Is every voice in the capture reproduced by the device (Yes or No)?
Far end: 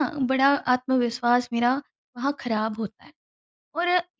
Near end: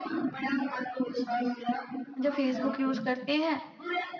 No